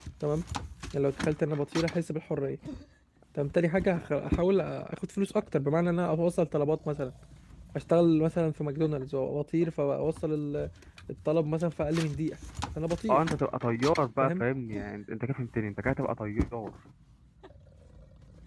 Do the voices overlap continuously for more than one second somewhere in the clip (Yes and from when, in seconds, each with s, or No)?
No